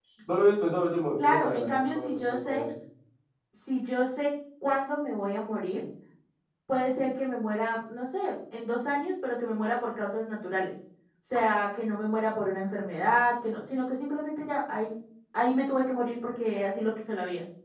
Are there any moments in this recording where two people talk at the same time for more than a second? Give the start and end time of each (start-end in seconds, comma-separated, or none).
1.2-2.7